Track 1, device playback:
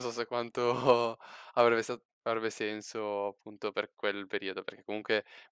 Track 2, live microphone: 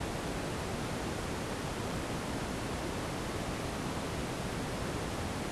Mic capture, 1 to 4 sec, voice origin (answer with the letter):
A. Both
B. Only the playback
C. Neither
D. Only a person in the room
C